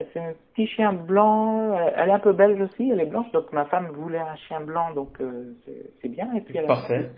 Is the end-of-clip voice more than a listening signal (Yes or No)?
No